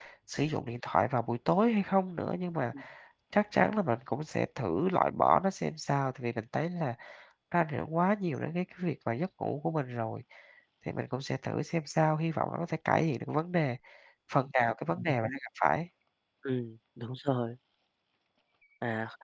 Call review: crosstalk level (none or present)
none